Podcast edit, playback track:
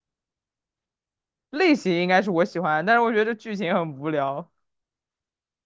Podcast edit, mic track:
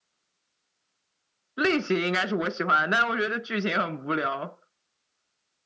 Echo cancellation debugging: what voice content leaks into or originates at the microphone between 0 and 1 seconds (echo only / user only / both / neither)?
neither